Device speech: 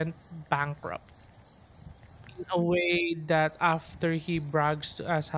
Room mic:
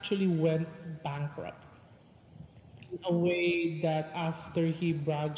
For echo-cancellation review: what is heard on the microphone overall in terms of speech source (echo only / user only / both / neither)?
echo only